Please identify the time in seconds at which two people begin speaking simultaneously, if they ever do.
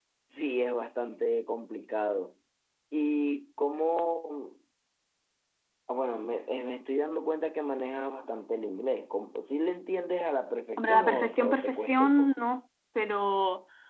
10.8 s

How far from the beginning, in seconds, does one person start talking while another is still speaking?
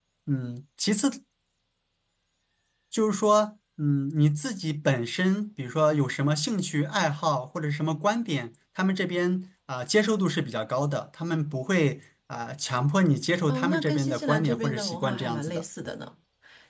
13.5 s

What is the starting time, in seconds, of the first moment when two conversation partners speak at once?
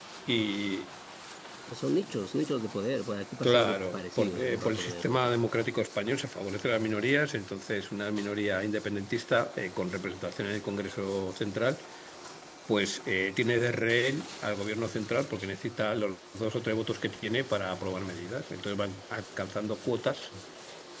3.4 s

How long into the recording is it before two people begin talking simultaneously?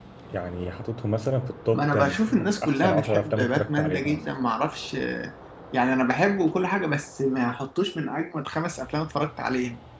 1.7 s

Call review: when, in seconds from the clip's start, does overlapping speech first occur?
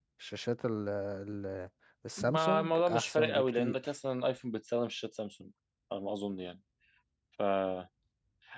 2.2 s

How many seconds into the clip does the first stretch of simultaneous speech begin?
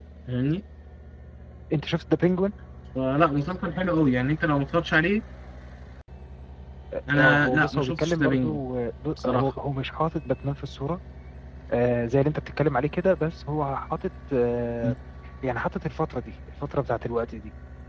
7.1 s

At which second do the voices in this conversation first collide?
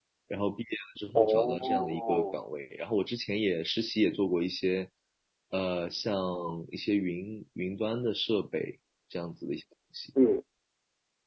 1.1 s

